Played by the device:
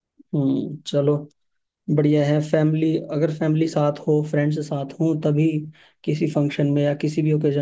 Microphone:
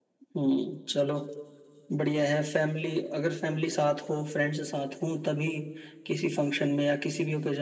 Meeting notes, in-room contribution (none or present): none